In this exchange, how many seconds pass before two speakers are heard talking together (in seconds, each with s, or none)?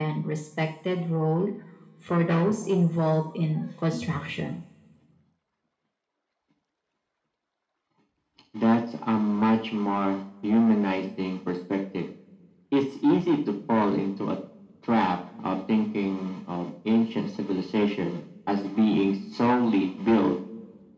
none